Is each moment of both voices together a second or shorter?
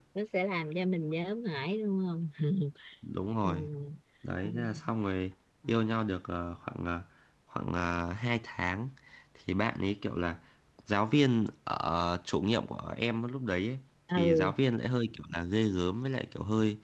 Yes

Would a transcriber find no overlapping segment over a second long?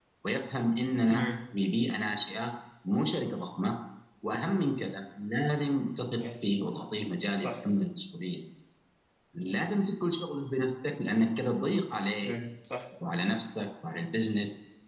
Yes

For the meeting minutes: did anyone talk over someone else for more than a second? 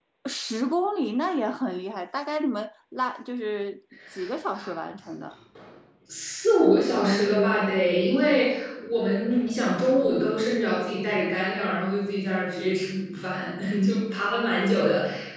No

